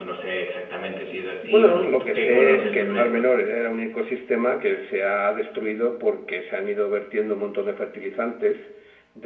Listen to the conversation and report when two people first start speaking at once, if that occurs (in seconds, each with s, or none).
1.4 s